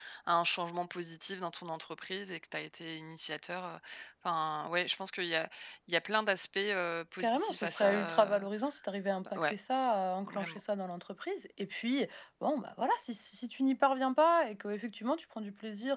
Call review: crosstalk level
present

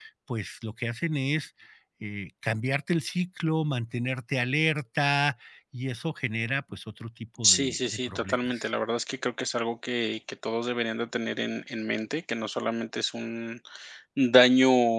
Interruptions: present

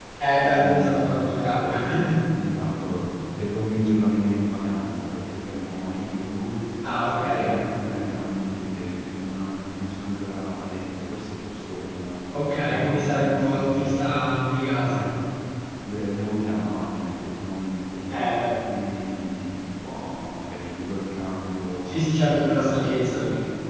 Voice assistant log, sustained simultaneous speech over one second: present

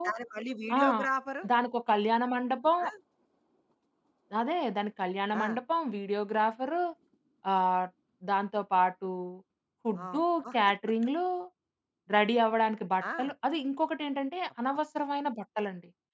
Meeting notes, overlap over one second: none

